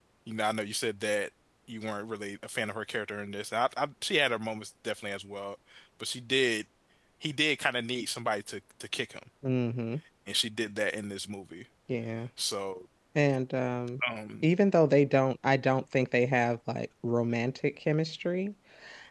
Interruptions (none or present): none